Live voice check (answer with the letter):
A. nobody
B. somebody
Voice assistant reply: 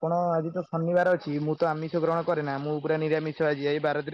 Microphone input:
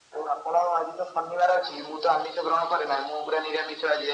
A